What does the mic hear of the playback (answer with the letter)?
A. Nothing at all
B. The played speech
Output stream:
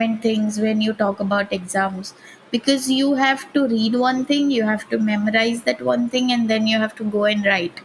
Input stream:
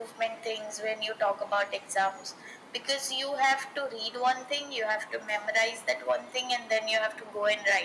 B